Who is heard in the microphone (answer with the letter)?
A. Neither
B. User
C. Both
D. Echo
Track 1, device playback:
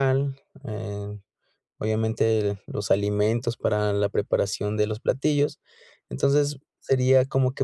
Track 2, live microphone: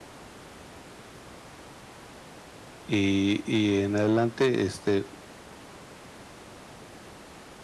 B